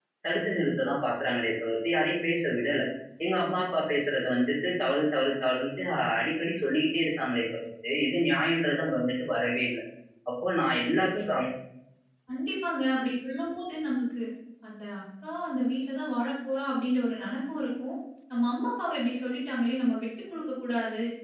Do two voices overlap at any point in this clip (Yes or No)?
No